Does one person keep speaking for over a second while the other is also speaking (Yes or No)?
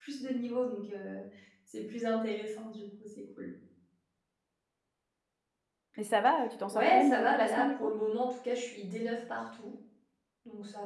Yes